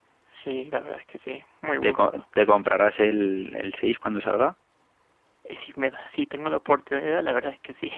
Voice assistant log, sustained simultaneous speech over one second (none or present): none